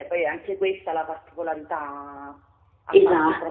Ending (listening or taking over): listening